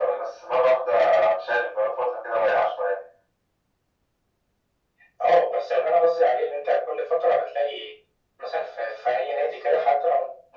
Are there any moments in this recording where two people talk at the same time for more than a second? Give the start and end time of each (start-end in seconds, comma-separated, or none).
none